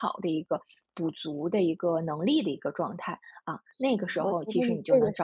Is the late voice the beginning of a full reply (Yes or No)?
Yes